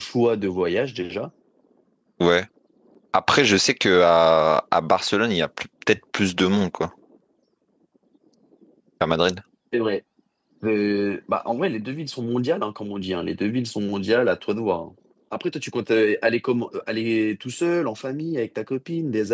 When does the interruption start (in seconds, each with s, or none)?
none